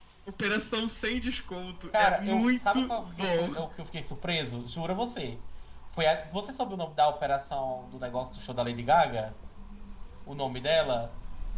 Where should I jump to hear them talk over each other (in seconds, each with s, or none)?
1.9 s